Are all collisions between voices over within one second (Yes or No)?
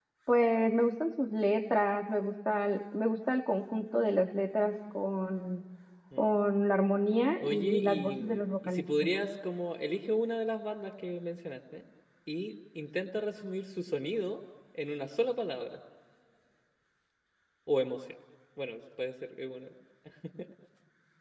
No